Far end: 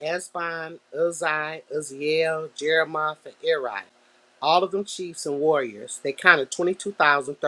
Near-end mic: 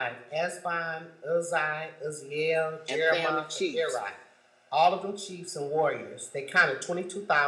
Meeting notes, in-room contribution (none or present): present